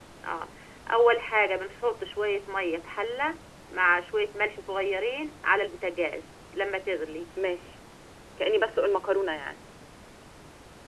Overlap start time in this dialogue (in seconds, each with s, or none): none